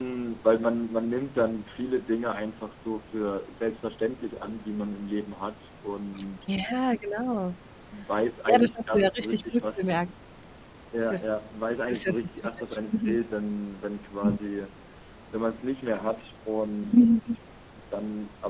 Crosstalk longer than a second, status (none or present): present